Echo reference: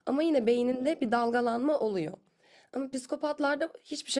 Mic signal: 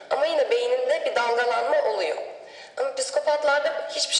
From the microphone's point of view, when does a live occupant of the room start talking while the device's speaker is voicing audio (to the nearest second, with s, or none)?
none